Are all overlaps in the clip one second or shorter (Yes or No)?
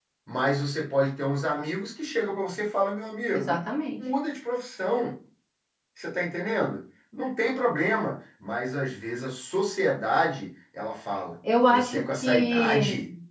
No